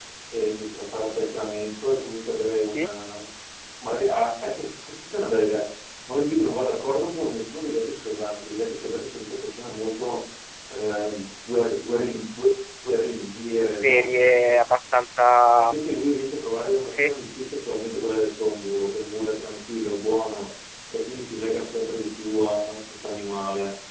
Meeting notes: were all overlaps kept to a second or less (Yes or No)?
Yes